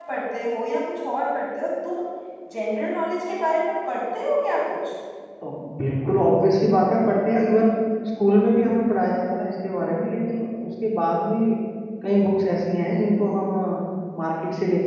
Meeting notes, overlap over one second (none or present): none